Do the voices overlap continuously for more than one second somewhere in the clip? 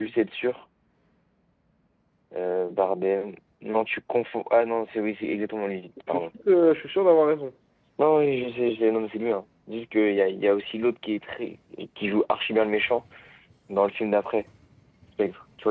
No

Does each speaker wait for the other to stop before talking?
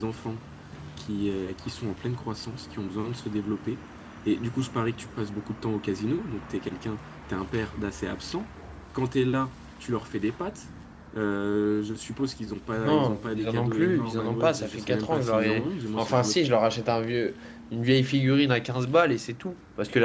No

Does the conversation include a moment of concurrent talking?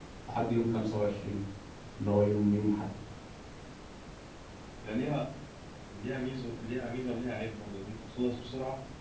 No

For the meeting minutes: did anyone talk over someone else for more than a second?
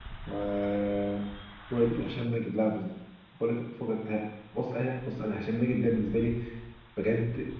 No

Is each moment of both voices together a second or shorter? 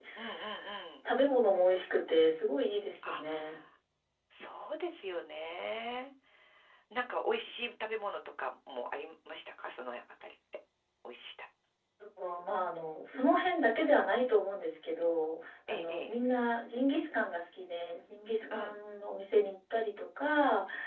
Yes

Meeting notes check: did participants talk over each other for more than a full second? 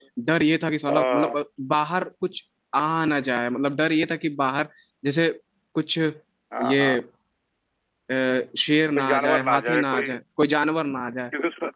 Yes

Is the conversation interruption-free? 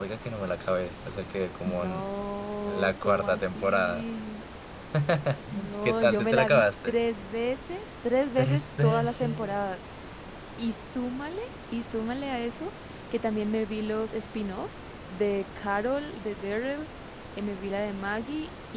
No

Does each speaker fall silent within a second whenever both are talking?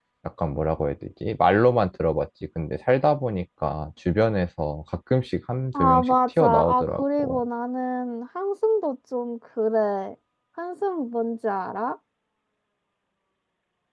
No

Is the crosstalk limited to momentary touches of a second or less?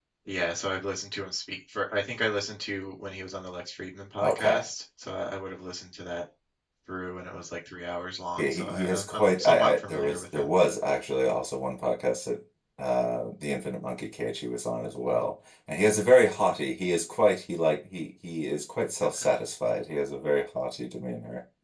No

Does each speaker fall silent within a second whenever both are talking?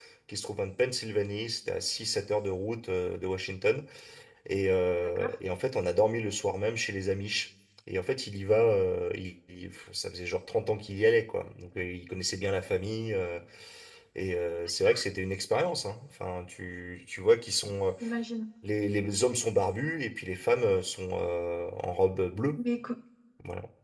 Yes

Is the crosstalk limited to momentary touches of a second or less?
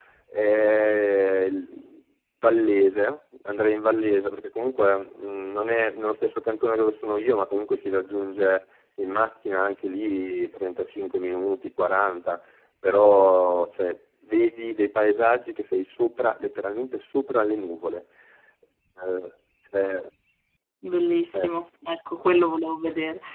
Yes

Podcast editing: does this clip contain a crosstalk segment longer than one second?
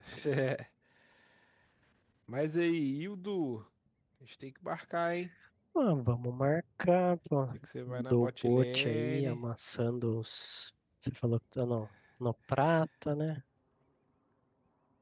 Yes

